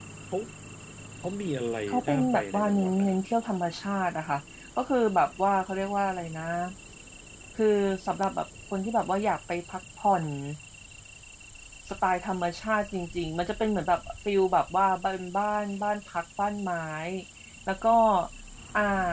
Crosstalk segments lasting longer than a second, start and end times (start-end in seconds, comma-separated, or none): 1.9-3.2